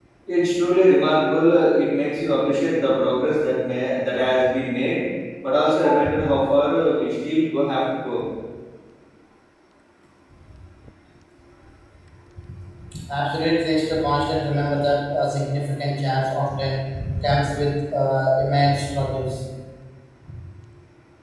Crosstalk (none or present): none